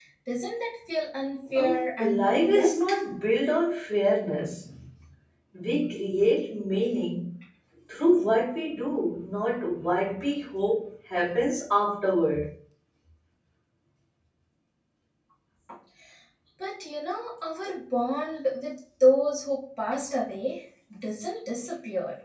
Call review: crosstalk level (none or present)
present